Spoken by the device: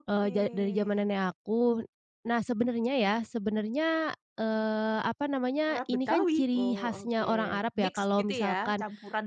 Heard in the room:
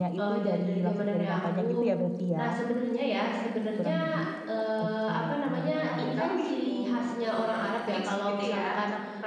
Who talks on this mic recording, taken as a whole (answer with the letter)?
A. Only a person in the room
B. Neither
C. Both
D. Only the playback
C